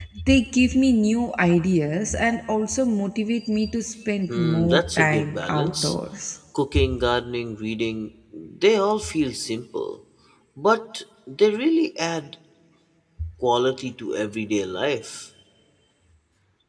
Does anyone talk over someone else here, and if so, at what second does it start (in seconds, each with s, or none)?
4.3 s